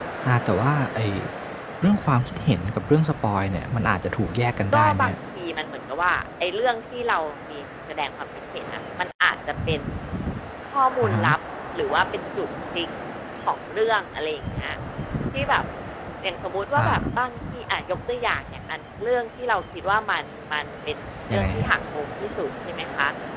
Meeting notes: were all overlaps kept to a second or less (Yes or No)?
Yes